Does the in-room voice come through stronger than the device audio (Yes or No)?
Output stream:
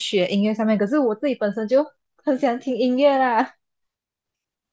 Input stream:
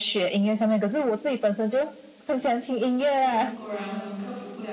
No